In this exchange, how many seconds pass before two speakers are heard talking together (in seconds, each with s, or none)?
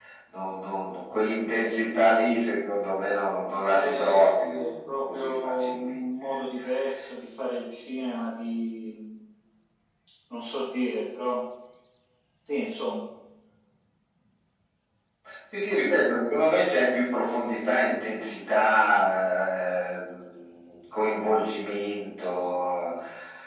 3.7 s